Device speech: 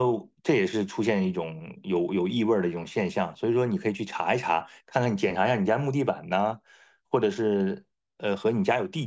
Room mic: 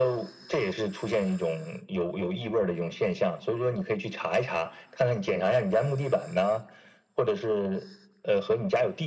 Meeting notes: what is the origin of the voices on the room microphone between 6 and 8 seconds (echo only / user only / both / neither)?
echo only